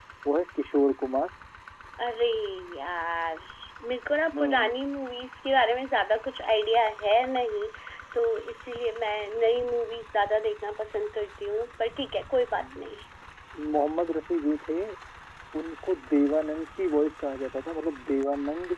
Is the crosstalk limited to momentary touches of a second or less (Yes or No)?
Yes